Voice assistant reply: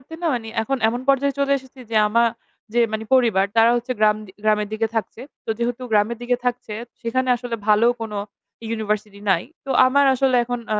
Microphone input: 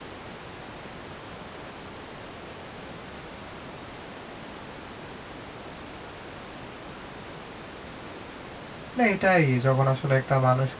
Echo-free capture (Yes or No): Yes